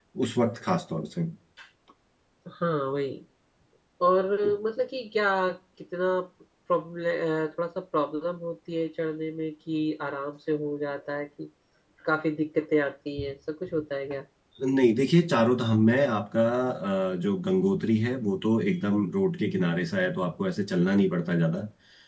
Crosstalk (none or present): none